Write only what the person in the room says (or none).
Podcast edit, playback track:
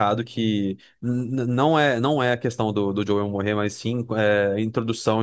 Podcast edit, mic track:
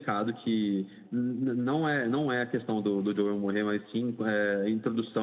none